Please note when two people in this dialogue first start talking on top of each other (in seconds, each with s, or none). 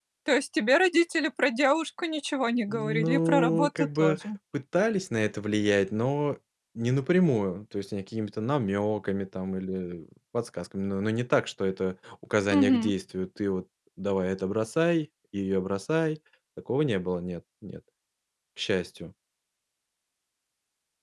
2.7 s